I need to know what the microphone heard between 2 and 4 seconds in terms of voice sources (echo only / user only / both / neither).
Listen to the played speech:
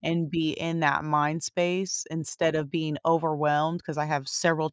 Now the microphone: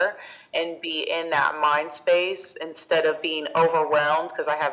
echo only